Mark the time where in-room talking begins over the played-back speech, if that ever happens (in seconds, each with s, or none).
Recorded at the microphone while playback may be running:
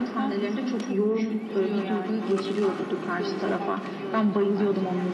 none